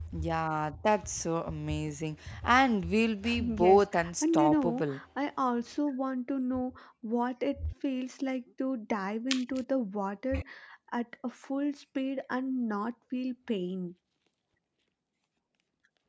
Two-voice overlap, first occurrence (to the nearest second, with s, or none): 3 s